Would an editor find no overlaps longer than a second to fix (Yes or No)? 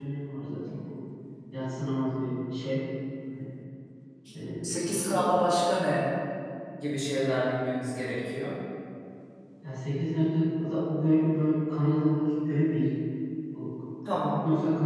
Yes